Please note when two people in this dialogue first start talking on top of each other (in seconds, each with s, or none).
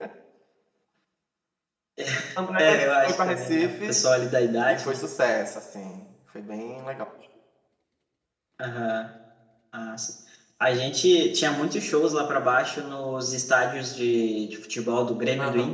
2.6 s